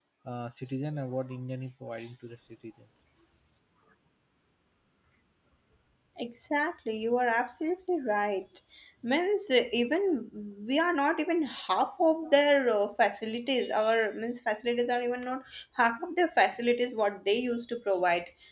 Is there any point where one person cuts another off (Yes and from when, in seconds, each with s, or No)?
No